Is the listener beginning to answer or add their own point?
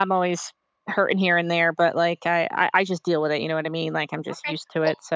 Yes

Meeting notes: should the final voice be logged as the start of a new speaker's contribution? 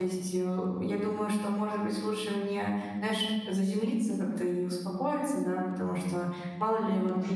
No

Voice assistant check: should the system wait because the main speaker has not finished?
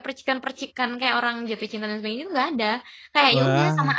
Yes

